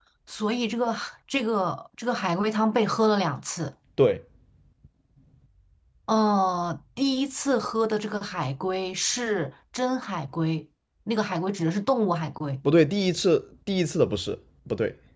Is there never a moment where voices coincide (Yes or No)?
Yes